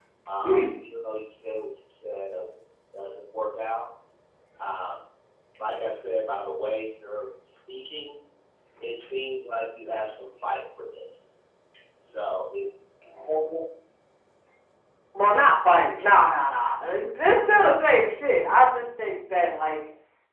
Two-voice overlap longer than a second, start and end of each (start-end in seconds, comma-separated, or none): none